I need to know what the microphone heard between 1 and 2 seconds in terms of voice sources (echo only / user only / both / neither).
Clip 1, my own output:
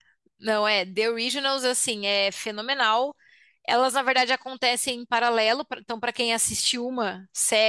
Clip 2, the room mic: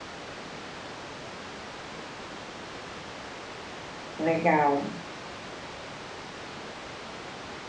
neither